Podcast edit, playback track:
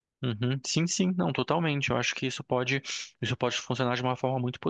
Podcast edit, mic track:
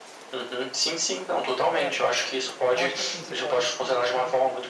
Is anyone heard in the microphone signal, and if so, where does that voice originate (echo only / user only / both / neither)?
both